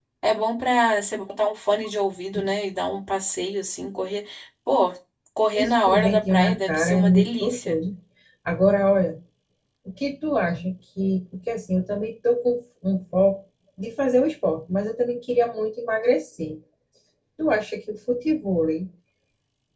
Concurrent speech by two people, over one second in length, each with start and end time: 5.5-7.8

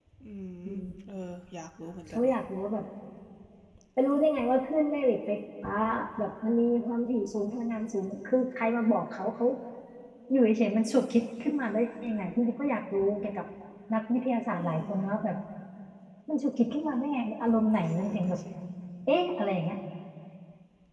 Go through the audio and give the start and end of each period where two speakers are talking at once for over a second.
none

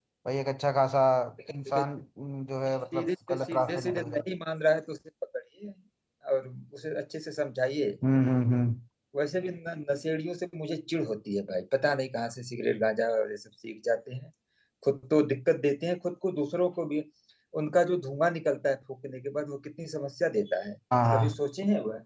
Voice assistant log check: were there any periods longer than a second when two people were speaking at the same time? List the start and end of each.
2.9-4.2

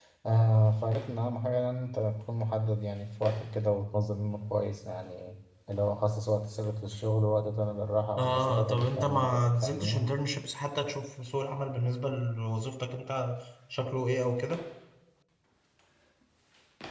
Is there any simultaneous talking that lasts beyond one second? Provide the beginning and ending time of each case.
8.2-10.0

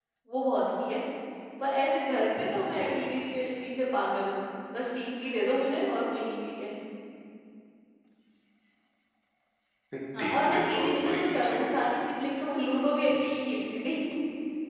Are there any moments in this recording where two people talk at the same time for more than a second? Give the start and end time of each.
10.2-11.8

